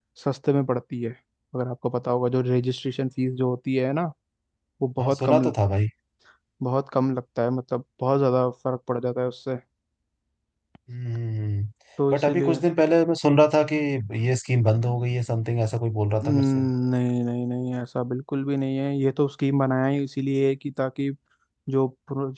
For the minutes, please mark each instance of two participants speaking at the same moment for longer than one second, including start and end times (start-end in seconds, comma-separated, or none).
none